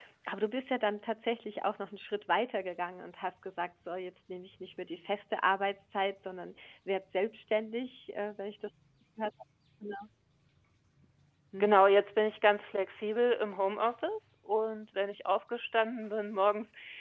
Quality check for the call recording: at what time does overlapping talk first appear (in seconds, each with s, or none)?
none